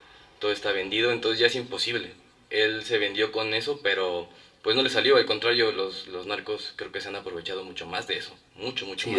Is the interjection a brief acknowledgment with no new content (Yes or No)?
No